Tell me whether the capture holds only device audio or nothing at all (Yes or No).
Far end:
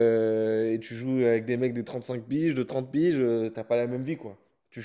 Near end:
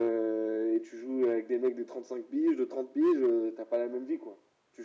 Yes